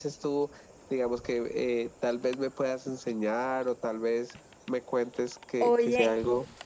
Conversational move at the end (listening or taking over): taking over